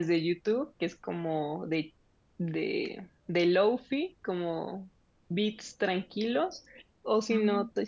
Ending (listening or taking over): listening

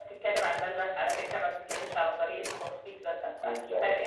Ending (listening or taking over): listening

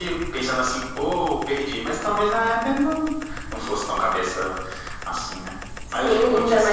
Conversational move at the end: taking over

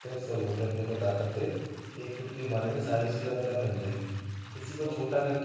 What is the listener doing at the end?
listening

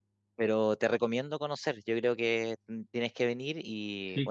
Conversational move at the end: listening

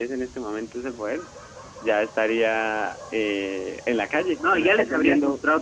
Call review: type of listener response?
taking over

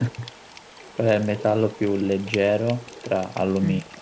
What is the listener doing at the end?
listening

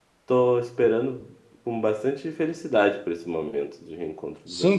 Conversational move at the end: taking over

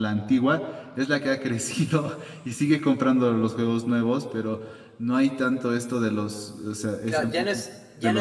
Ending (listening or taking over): taking over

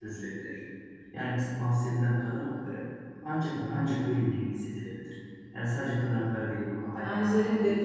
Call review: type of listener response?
taking over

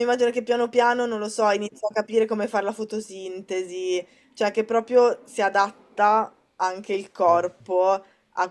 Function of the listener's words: listening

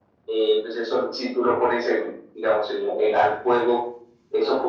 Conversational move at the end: listening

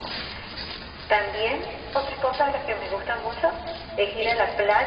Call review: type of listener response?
listening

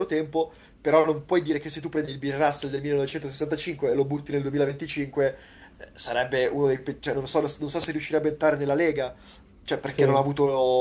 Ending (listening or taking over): listening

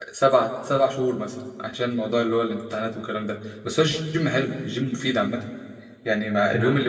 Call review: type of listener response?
listening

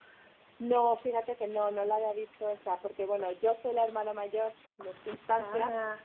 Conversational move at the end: listening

